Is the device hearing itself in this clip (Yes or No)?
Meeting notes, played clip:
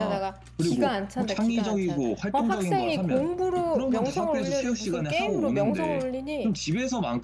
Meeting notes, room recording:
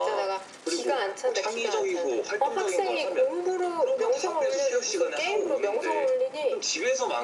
Yes